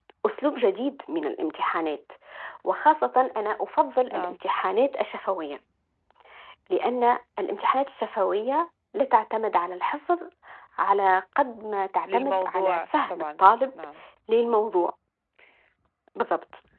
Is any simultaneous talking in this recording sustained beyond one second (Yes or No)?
Yes